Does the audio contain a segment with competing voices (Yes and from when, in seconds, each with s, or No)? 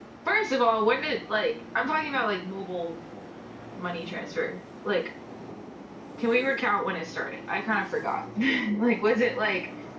No